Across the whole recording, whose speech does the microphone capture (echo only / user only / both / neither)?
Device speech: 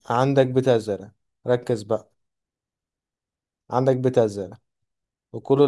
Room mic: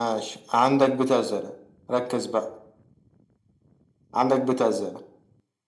echo only